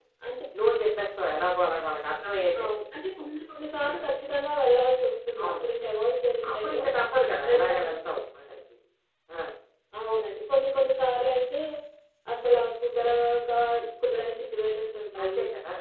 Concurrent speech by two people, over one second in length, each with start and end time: none

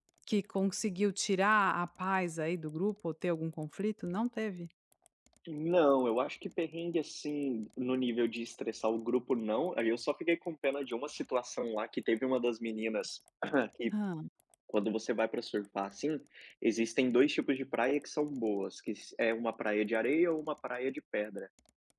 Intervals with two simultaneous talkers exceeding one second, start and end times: none

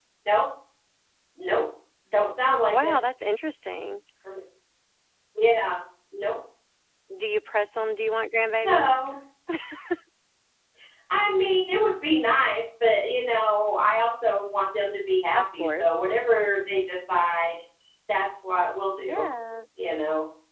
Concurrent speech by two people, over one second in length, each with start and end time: none

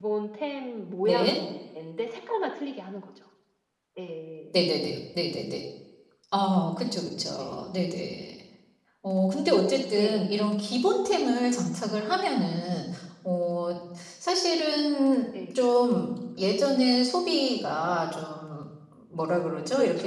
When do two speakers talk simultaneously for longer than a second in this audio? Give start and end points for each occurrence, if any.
none

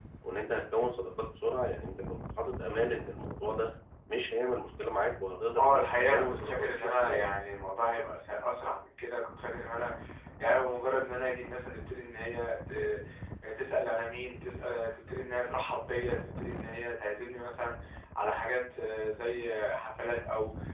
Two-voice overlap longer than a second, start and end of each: 5.6-7.2

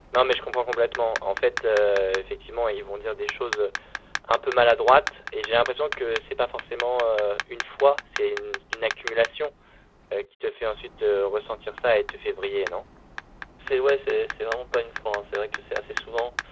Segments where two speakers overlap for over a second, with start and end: none

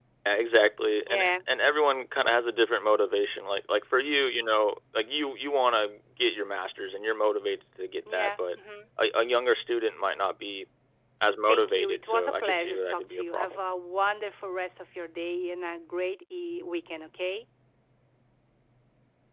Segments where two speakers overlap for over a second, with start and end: 11.5-13.6

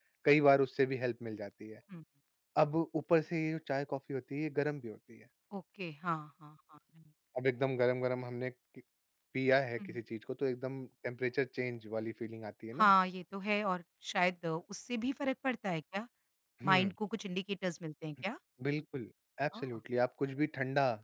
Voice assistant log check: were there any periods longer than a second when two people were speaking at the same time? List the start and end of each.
none

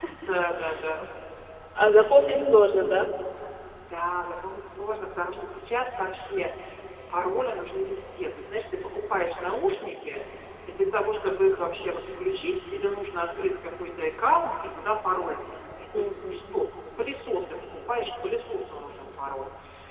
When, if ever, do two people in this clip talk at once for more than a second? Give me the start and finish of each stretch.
none

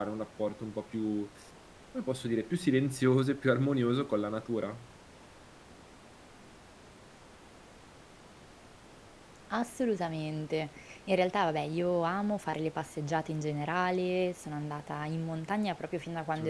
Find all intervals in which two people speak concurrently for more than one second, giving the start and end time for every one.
none

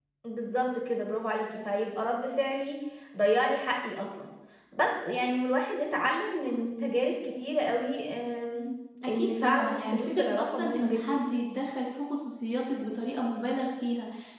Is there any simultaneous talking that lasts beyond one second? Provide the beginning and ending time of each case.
9.1-11.0

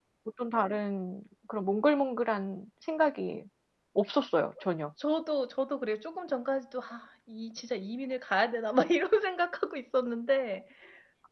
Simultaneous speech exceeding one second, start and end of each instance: none

